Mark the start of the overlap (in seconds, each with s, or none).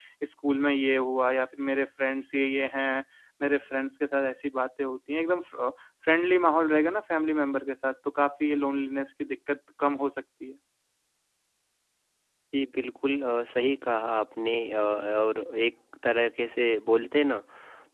none